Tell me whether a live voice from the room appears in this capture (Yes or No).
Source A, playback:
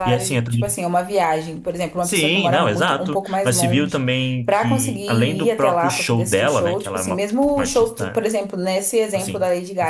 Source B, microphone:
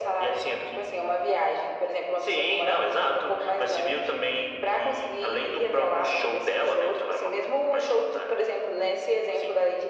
No